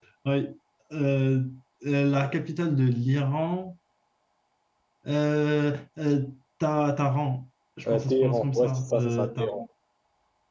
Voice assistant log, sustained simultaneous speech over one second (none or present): present